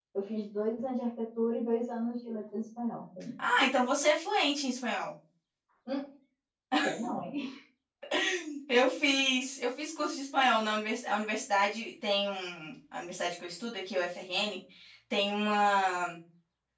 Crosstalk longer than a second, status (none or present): none